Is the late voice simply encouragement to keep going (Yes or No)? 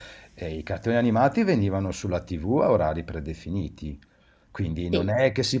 Yes